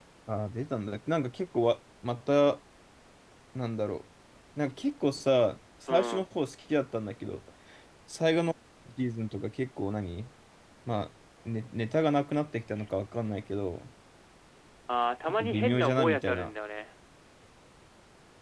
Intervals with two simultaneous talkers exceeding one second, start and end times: 15.3-16.5

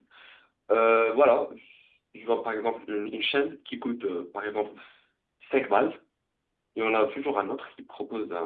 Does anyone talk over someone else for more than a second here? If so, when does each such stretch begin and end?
none

